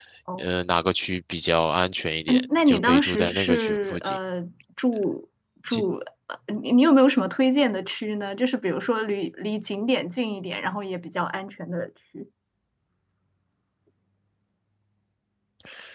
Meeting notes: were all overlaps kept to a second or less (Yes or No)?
No